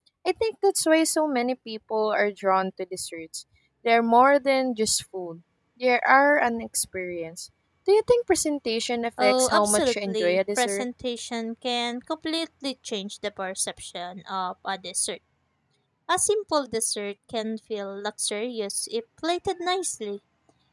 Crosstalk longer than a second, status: present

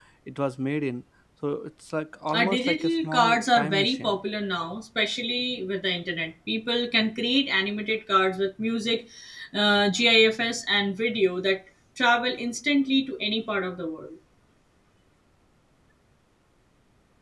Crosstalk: present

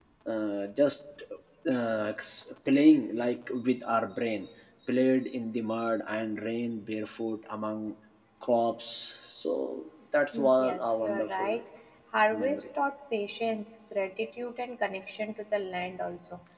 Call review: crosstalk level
present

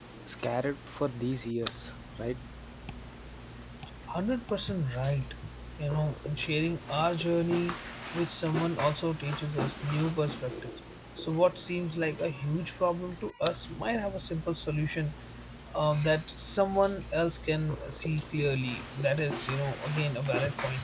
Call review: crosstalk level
none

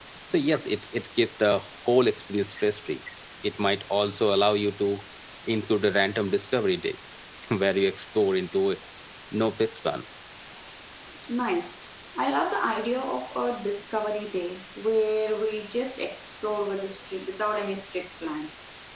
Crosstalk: none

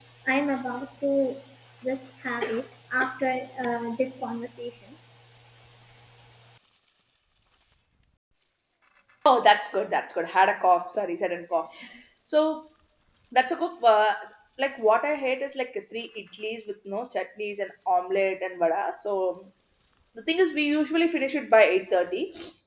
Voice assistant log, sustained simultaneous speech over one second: none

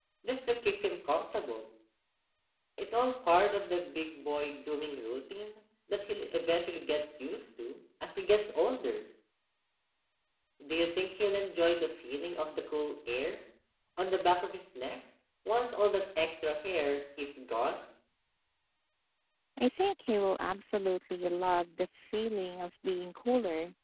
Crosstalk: none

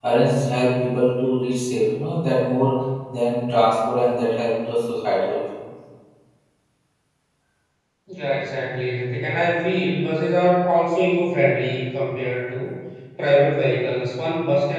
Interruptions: none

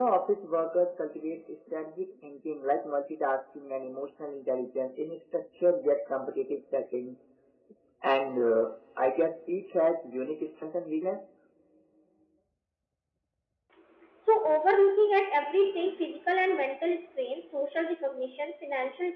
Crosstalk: none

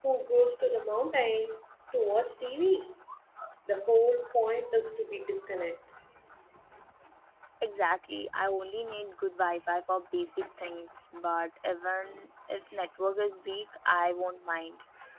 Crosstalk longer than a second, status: none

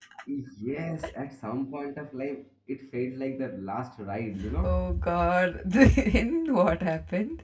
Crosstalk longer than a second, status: none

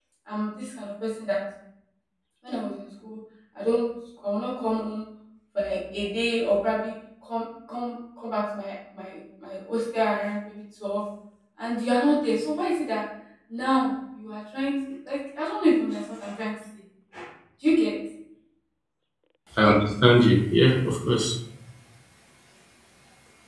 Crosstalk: none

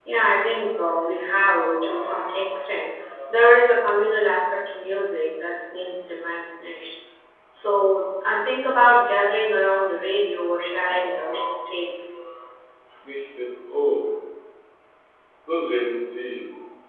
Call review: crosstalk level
none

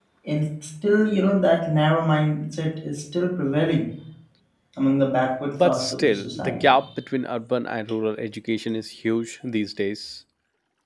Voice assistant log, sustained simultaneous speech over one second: present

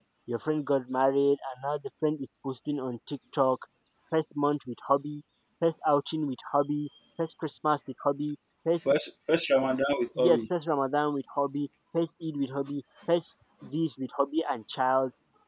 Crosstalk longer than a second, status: none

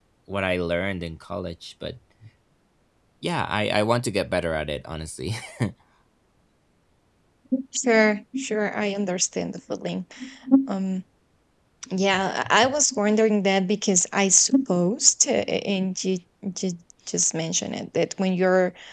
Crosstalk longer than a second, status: none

